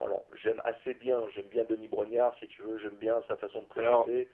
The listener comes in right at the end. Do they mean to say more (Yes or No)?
No